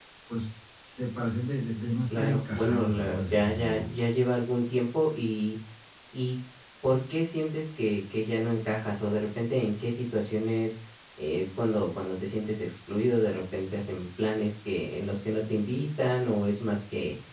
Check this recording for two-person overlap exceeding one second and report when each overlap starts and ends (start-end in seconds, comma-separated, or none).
2.1-3.9